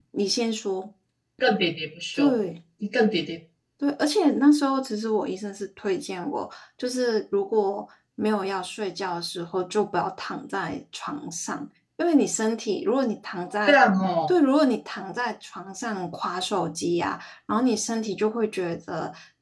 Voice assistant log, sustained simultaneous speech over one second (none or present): none